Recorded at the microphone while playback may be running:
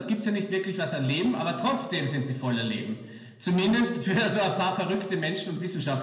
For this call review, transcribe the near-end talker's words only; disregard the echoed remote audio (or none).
none